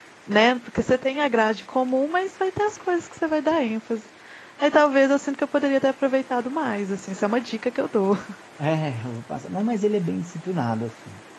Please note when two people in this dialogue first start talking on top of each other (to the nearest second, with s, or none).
none